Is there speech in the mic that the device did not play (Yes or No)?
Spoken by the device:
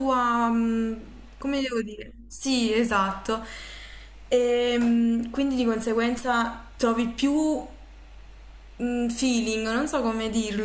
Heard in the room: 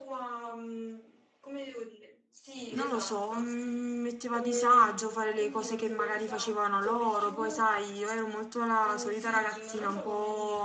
Yes